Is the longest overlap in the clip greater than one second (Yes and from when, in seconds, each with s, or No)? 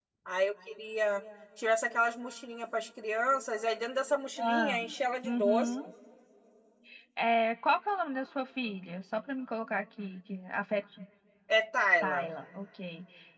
No